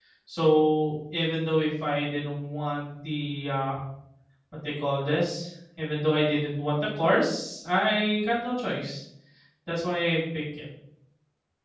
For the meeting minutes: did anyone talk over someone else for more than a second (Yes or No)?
No